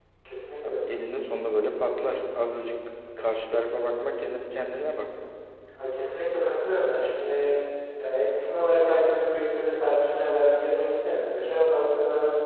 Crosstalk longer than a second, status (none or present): none